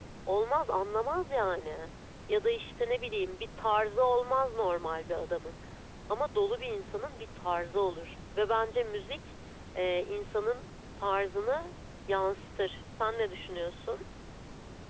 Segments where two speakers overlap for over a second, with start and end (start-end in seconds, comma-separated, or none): none